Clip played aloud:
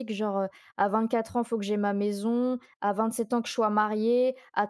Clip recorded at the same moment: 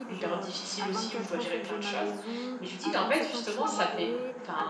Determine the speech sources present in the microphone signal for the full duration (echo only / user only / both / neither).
both